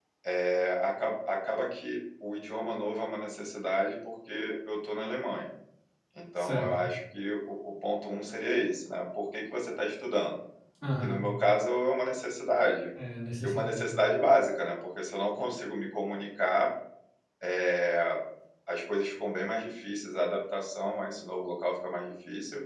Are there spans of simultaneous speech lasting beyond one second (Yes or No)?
No